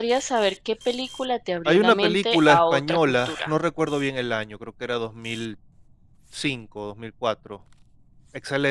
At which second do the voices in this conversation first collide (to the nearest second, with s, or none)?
2 s